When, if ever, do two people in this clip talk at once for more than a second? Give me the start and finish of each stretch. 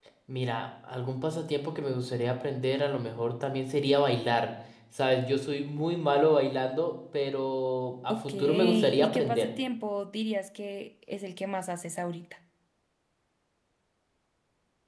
8.1-9.5

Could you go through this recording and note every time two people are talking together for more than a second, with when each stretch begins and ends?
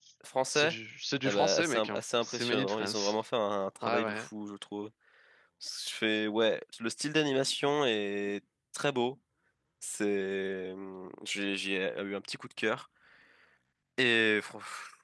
1.2-3.2

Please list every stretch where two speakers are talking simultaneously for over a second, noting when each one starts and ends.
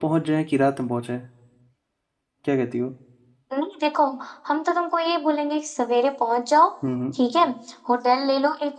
none

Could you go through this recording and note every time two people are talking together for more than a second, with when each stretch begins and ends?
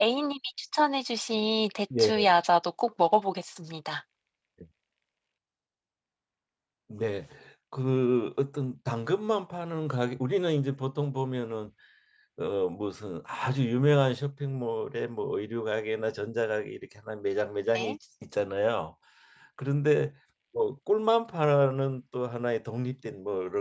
none

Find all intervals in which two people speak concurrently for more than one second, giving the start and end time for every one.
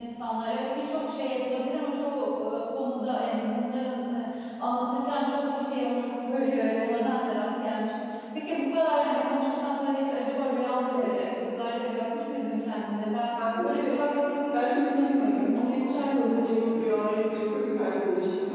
14.5-17.0

